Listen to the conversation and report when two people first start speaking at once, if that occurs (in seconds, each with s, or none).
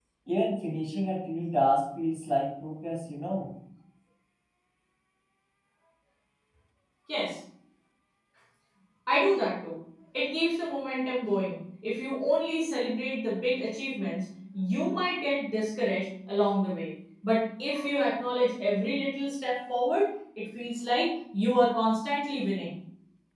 none